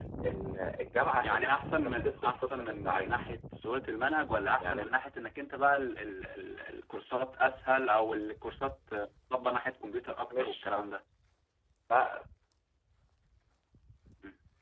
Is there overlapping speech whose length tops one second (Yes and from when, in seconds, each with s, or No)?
Yes, from 1.2 s